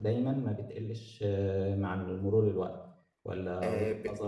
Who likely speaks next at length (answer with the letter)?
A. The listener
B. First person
A